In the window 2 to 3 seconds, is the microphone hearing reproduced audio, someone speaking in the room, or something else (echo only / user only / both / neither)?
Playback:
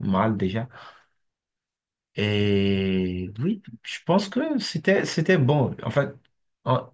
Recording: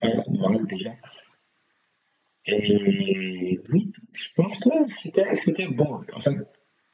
echo only